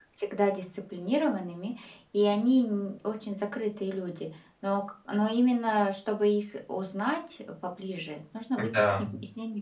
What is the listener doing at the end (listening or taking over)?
listening